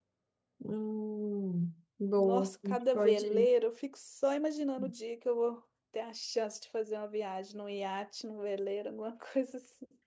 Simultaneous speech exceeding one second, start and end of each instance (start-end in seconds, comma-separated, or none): 2.2-3.5